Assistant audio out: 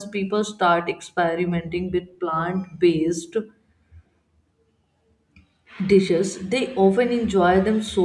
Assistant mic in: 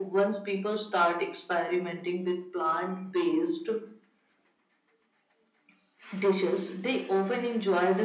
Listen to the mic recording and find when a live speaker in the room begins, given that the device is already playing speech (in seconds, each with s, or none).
none